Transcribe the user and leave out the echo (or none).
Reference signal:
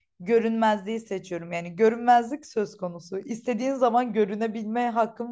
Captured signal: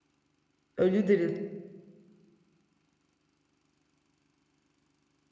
Ölü dirilt.